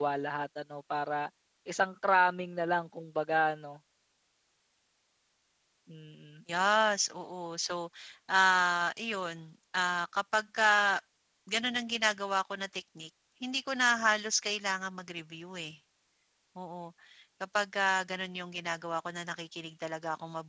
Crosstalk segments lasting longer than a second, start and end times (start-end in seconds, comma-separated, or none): none